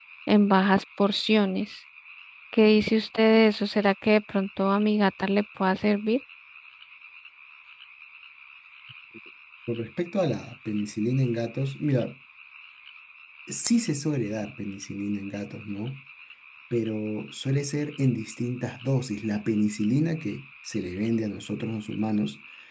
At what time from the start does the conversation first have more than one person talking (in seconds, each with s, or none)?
none